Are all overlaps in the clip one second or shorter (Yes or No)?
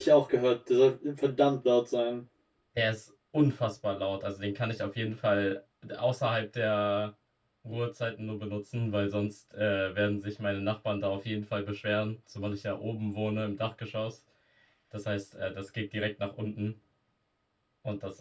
Yes